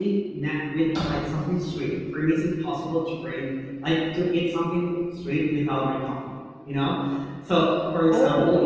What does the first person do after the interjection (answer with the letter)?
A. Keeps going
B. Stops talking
A